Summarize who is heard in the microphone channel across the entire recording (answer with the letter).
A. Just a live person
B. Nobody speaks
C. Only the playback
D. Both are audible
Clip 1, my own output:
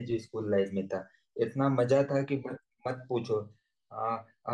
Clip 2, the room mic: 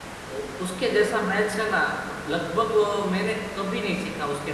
A